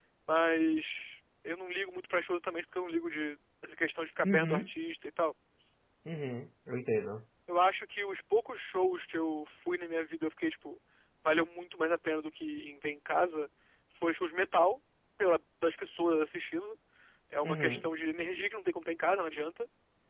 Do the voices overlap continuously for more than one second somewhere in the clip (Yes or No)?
No